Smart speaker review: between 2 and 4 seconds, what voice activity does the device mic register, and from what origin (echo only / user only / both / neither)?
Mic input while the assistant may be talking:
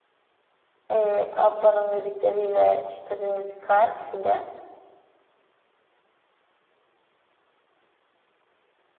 user only